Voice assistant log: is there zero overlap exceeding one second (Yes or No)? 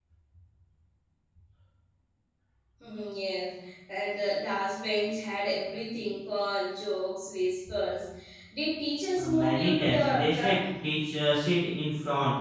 No